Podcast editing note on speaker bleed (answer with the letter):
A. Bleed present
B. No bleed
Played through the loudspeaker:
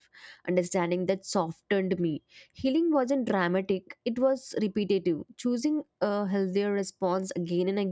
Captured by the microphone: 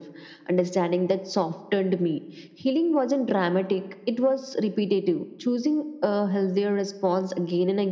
A